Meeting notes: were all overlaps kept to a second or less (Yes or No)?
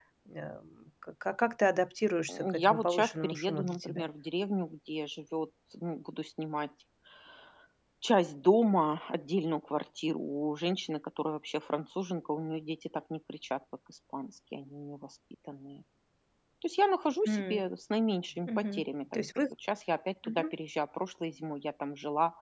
No